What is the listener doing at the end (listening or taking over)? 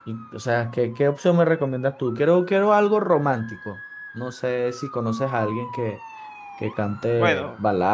taking over